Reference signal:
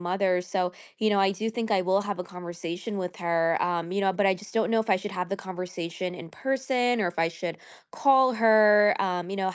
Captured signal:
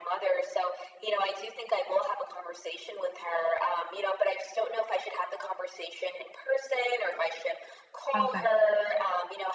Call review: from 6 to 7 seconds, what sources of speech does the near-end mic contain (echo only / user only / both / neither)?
echo only